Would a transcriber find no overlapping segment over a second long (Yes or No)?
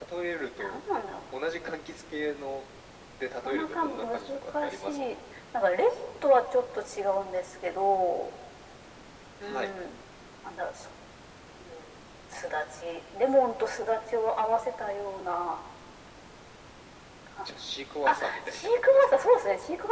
No